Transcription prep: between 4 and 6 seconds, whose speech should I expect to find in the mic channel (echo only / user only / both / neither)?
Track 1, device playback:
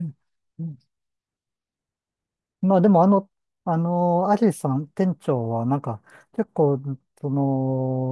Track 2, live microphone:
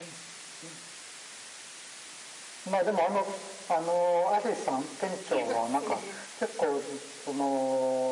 both